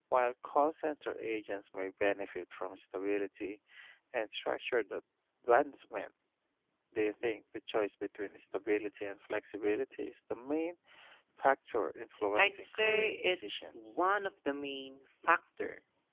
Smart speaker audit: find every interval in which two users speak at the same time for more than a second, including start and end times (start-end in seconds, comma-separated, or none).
12.4-13.9